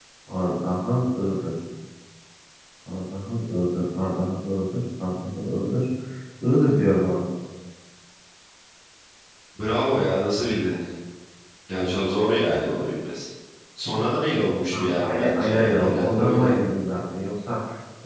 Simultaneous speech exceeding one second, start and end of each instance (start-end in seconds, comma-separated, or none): 14.7-16.5